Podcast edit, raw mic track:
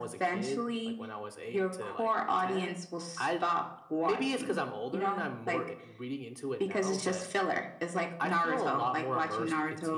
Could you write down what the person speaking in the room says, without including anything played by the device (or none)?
none